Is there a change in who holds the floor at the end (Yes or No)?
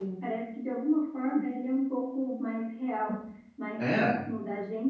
No